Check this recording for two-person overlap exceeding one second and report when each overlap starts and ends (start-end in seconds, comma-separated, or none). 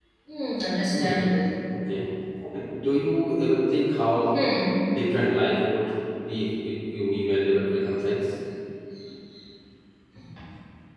none